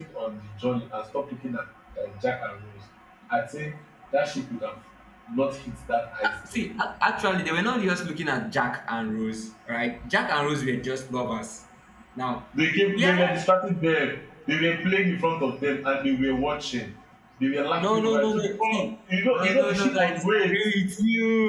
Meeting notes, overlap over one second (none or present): present